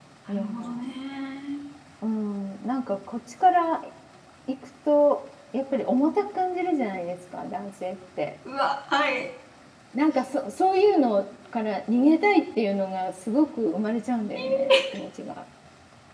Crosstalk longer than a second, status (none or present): none